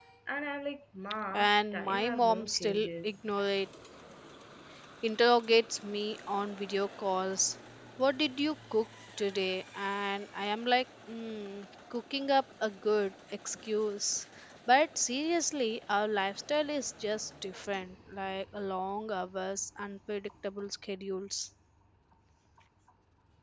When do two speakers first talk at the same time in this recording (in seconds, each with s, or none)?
1.3 s